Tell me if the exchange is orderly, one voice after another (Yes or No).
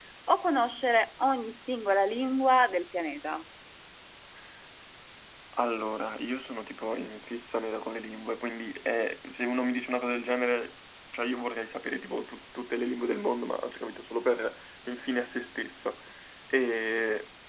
Yes